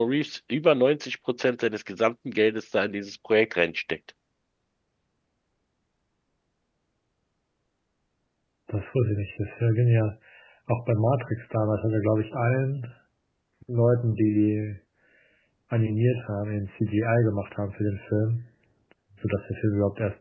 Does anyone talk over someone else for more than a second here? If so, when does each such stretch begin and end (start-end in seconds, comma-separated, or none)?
none